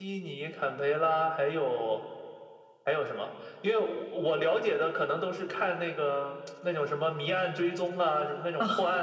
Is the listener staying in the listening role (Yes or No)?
Yes